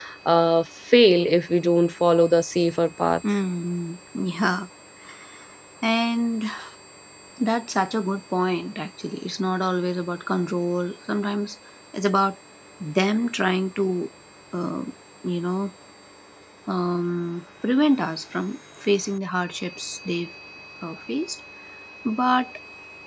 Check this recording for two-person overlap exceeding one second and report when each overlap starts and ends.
none

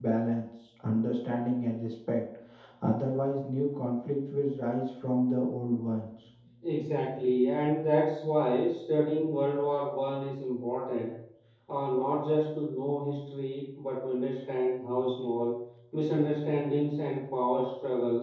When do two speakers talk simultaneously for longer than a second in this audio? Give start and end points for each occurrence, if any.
none

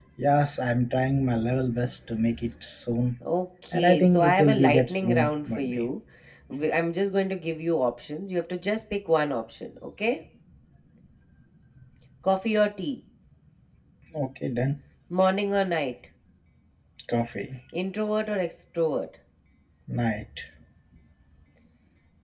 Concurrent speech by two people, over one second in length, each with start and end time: 3.7-5.2

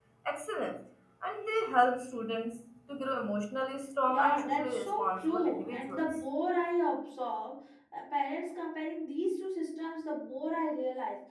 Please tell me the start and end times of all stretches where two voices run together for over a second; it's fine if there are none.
4.1-6.0

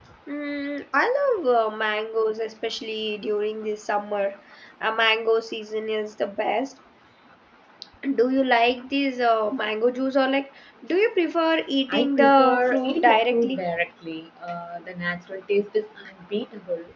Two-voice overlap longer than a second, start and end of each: 11.9-13.6

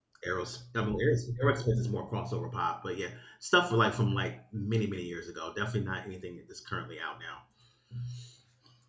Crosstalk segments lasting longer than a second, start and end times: none

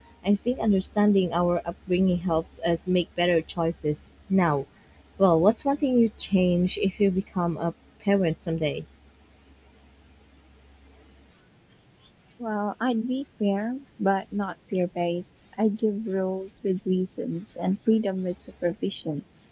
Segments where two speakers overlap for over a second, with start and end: none

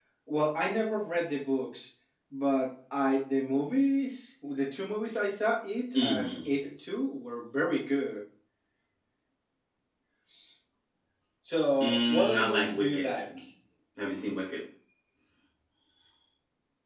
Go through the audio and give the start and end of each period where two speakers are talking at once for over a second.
11.8-13.2

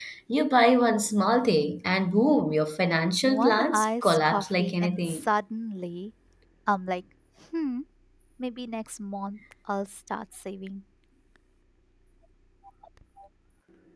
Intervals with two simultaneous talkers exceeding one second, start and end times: 3.2-5.3

